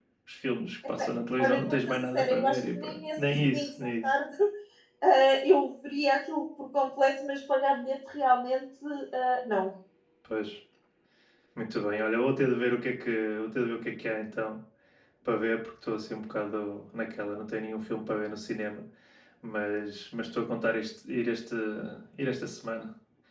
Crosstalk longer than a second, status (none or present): present